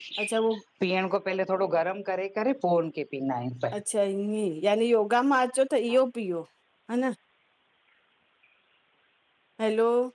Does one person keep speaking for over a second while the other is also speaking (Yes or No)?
No